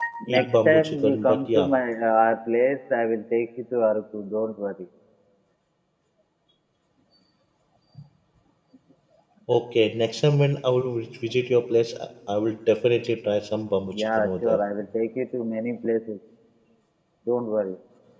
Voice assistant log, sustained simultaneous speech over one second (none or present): present